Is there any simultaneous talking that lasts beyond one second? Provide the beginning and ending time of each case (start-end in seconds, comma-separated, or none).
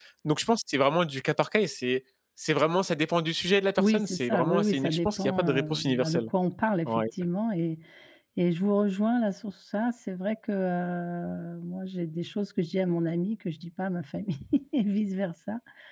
3.8-6.3